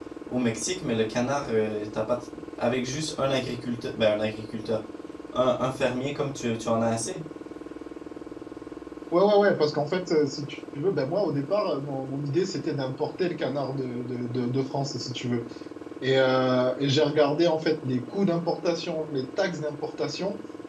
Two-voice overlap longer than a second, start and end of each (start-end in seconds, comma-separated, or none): none